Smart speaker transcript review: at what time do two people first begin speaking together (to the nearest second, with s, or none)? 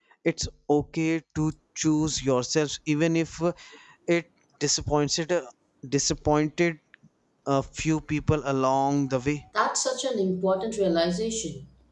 none